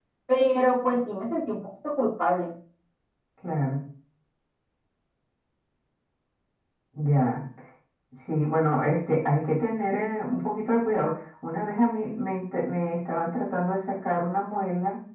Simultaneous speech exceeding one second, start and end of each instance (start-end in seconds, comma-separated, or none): none